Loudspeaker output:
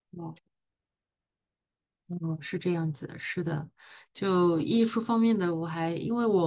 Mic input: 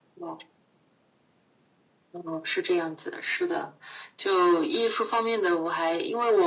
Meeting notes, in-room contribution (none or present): none